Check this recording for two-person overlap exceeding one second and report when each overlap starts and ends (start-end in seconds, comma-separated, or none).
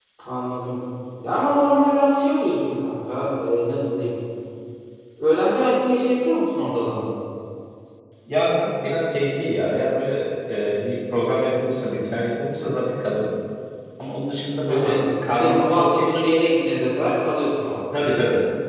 14.7-16.1